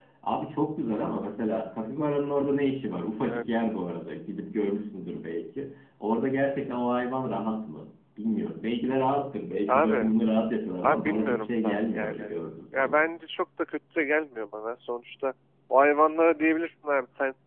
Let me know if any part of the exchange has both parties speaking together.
Yes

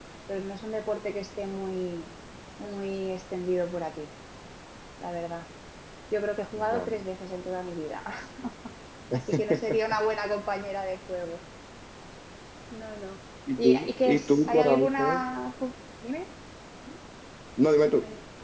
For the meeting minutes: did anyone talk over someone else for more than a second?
Yes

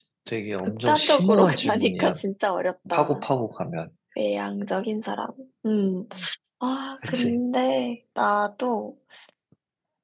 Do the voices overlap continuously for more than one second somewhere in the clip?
Yes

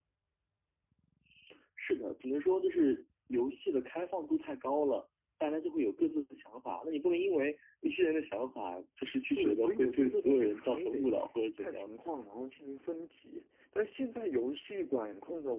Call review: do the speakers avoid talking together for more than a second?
No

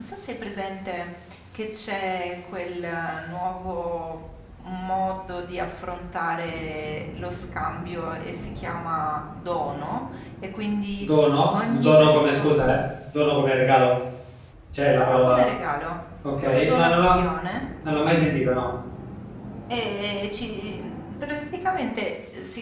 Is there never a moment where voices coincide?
No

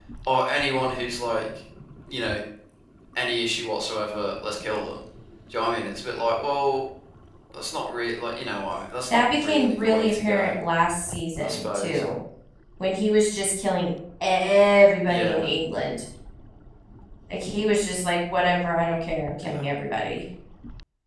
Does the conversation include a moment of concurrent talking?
Yes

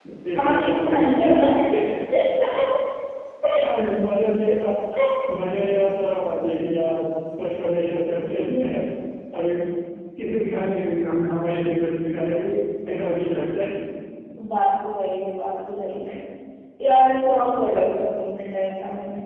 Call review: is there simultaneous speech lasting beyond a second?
Yes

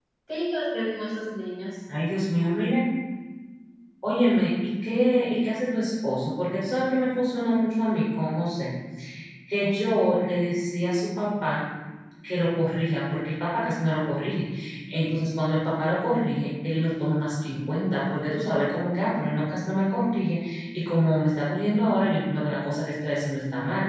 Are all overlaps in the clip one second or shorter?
Yes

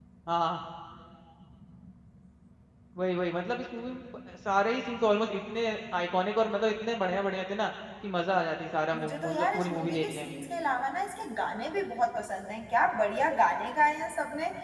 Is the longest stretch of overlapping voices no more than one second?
No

